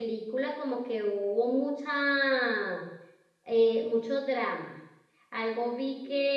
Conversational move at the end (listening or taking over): listening